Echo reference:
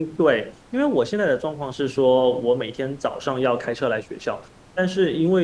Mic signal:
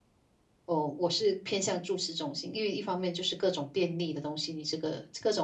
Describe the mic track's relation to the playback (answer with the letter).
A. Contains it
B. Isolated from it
B